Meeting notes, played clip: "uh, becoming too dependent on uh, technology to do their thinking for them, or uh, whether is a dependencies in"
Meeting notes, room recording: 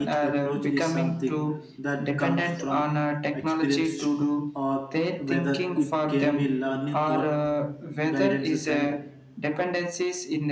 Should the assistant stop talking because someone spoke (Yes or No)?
Yes